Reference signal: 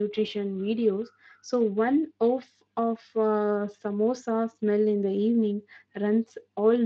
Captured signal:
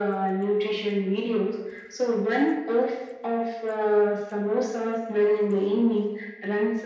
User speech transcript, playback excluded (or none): none